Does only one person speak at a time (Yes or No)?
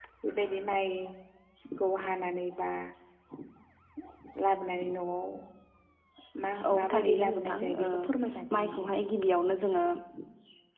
No